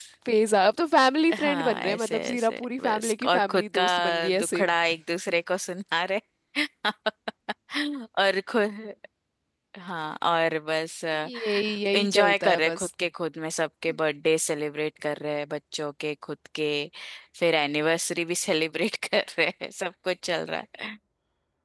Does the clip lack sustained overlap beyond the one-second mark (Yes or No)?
No